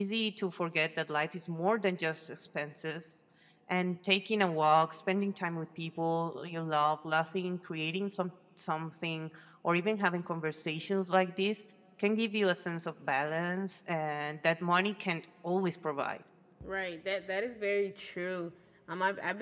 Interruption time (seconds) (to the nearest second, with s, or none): none